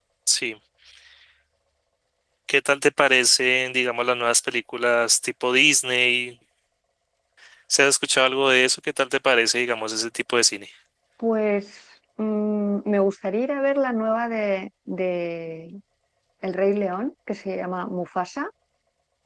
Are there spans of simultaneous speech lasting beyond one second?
No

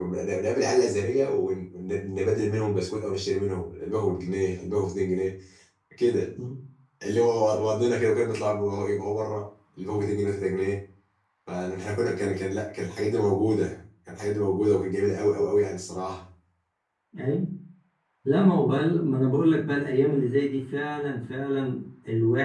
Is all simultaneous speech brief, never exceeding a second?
Yes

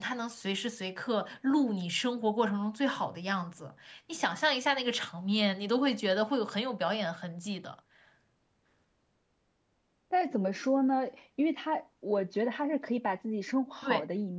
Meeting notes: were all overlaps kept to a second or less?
Yes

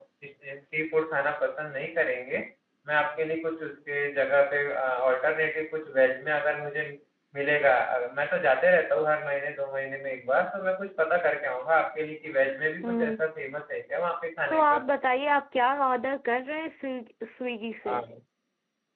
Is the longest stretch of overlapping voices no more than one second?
Yes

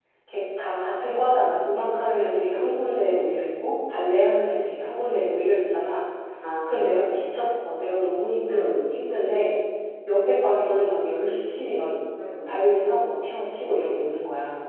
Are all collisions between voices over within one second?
Yes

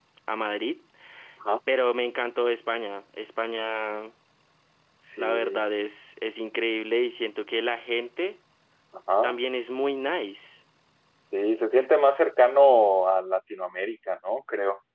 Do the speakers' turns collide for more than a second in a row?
No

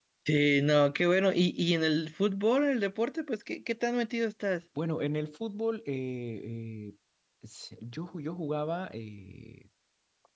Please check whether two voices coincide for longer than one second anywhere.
No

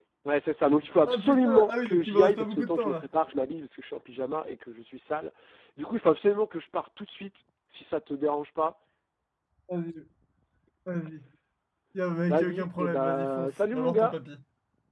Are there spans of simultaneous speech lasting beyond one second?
Yes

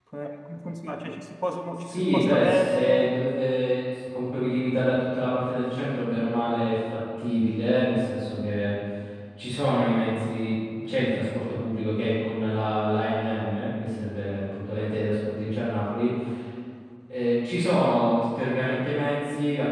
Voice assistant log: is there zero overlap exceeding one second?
No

